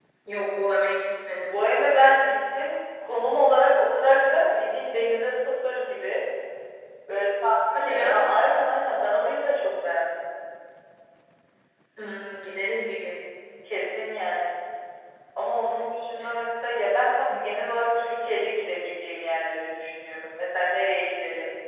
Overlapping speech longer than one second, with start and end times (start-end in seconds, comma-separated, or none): none